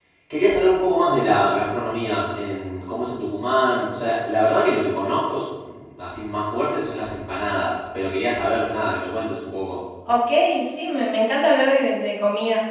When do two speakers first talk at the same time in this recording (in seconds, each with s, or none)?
none